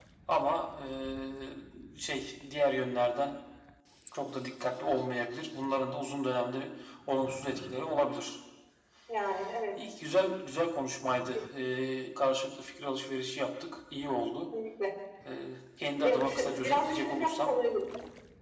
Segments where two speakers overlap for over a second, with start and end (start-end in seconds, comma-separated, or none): 15.9-17.5